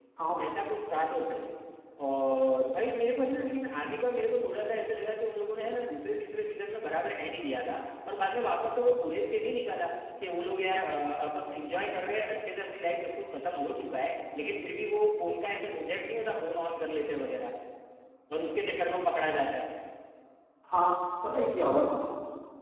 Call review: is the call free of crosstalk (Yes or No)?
Yes